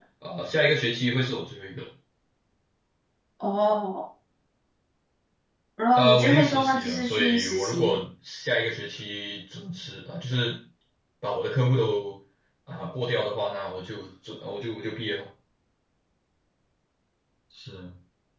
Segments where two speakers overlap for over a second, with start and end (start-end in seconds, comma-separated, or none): 6.0-8.0